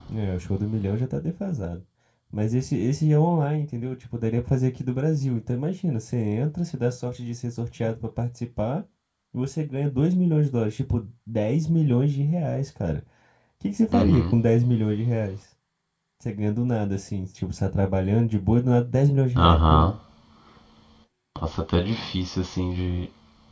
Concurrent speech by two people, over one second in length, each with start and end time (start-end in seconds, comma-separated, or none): none